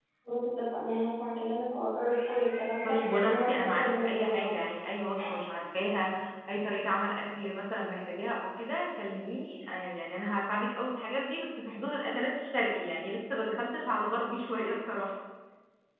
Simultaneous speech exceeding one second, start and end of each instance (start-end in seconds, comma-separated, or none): 2.8-4.5